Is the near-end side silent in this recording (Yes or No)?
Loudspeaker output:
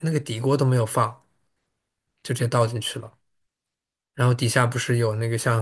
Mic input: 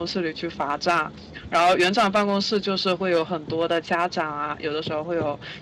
No